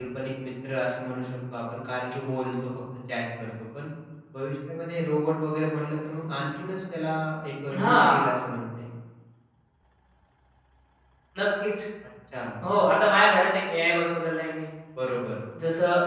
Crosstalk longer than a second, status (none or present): none